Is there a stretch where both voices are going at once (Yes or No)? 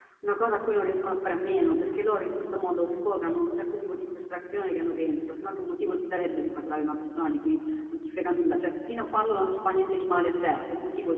No